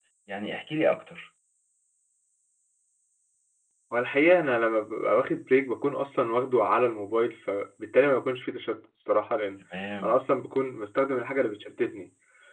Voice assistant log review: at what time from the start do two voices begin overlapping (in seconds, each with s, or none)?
none